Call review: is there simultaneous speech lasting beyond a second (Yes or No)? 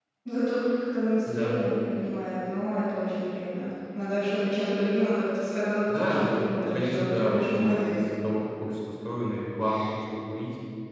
Yes